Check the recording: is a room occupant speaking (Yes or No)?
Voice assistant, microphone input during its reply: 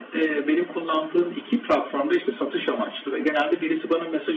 No